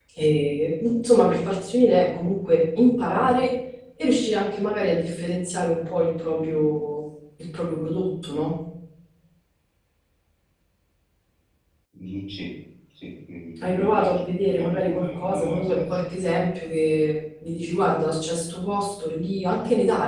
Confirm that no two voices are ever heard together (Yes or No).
No